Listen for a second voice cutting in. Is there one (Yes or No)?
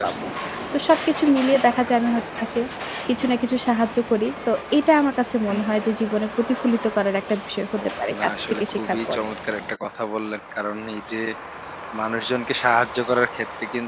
Yes